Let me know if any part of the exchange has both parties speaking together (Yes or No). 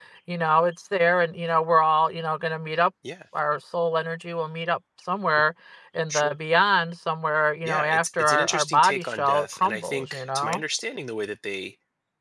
Yes